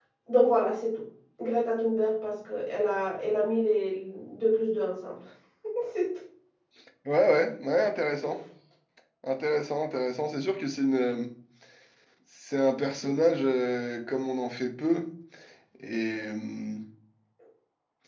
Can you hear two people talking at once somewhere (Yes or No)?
No